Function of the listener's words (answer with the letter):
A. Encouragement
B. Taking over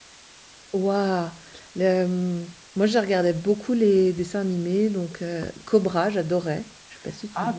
B